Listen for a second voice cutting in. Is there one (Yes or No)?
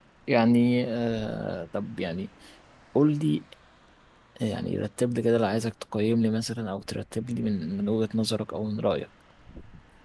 No